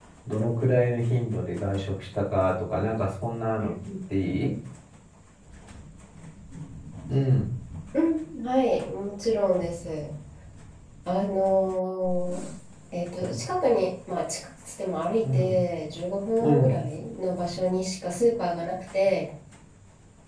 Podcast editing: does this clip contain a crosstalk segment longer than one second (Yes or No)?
No